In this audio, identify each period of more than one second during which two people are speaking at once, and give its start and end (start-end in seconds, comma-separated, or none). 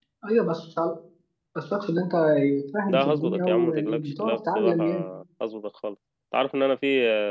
2.9-4.8